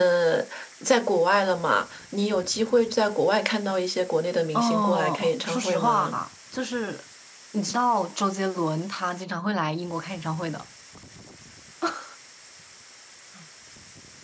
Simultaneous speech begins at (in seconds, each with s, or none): 4.5 s